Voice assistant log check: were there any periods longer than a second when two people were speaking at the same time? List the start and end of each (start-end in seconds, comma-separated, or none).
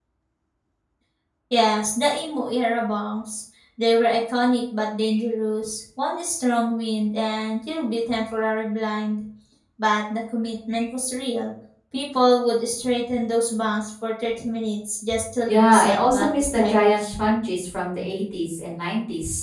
15.5-17.1